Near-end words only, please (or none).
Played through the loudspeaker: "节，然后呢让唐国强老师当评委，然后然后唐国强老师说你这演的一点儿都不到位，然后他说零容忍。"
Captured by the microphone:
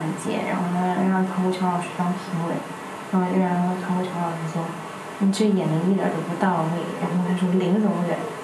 none